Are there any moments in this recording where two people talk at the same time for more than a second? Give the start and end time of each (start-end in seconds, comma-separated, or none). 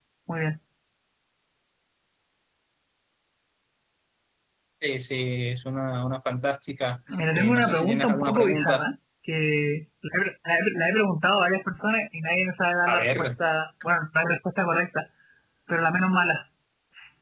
7.3-8.8